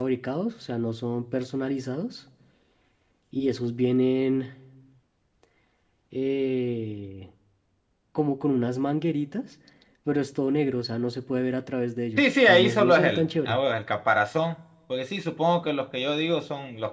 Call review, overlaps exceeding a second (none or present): present